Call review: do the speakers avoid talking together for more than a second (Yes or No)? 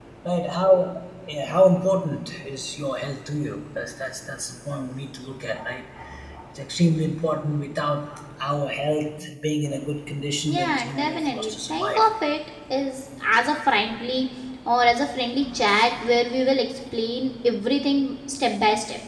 No